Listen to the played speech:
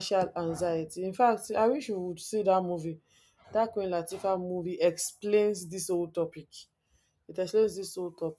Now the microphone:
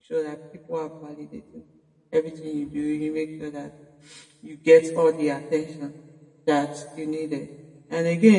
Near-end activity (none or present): present